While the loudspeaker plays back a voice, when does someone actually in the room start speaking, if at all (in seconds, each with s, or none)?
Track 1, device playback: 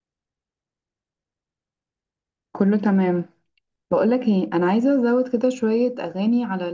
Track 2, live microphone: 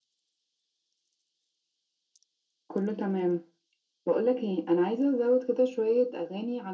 none